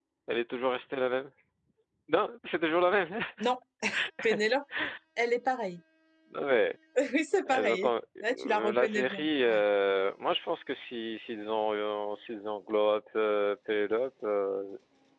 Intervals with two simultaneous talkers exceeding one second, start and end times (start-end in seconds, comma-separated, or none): 8.4-9.6